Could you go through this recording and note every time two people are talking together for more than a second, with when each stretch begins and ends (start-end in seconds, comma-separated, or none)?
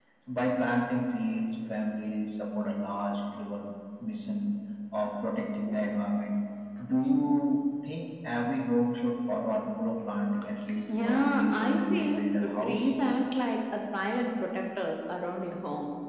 11.0-12.8